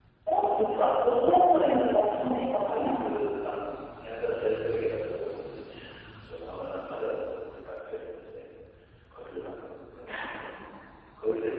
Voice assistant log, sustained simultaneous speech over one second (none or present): none